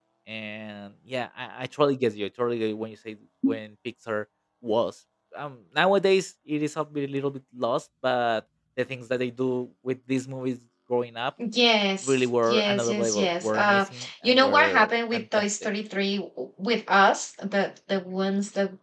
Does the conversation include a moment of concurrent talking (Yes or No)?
Yes